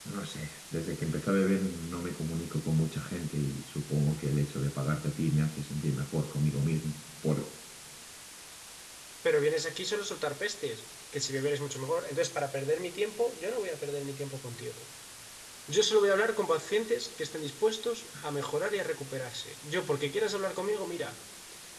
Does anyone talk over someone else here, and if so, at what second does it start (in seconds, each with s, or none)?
none